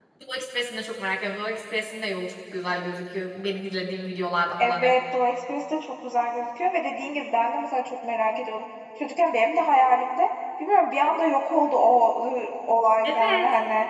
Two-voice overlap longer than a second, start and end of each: none

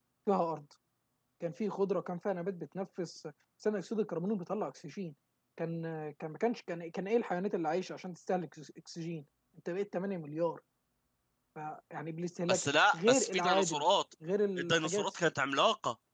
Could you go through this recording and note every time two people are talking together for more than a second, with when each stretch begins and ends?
12.5-13.8

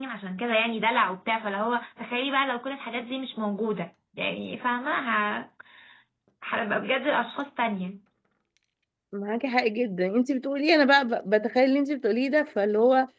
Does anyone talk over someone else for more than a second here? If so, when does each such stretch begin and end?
none

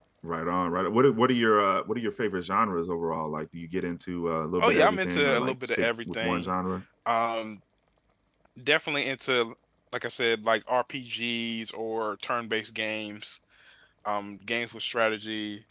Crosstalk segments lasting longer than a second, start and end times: 4.6-6.5

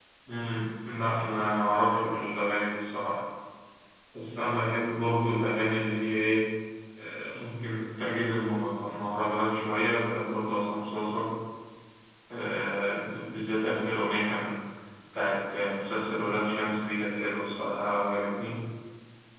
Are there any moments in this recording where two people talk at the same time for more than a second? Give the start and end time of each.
none

